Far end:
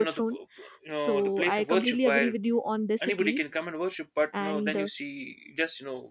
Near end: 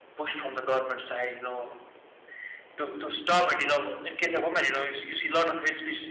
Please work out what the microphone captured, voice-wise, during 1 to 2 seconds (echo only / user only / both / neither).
user only